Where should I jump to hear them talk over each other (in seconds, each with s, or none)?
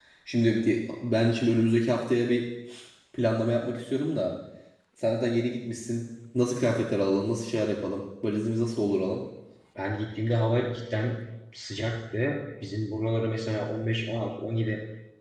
none